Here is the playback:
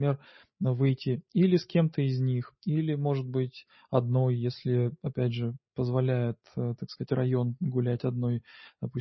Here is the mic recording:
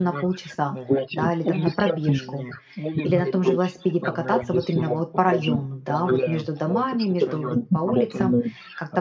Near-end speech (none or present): present